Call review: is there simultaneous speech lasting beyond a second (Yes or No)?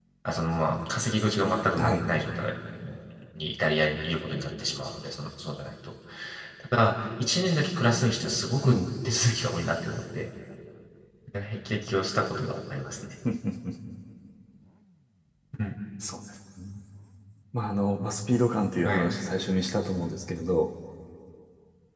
No